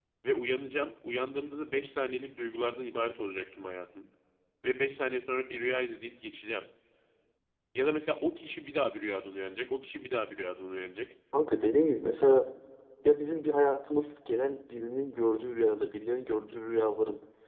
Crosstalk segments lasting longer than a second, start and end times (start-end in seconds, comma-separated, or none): none